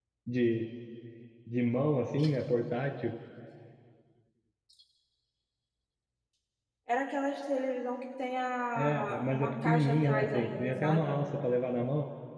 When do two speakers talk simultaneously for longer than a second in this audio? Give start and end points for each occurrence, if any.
8.8-11.2

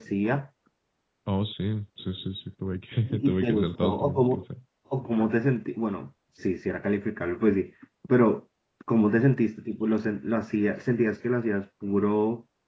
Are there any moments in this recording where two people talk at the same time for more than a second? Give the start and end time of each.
3.0-4.4

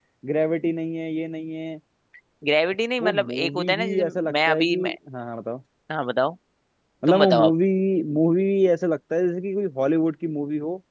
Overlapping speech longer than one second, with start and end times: 3.0-4.8

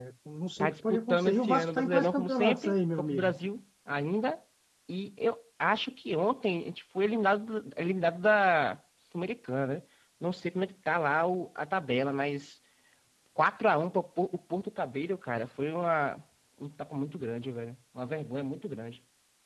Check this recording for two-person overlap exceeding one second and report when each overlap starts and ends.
0.6-3.3

